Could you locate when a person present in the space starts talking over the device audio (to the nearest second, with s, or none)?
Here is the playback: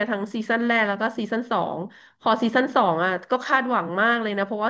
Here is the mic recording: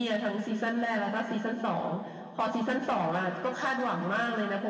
none